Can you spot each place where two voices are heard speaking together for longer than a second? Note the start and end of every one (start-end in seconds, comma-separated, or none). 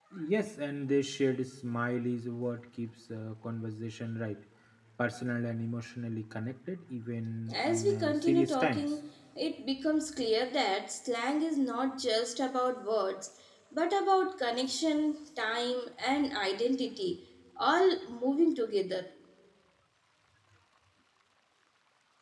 7.5-9.0